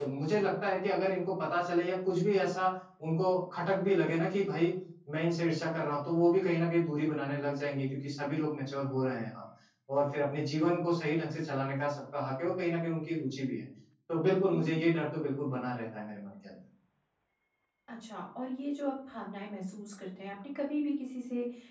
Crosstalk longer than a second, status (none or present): none